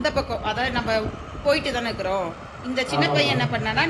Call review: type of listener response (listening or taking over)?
listening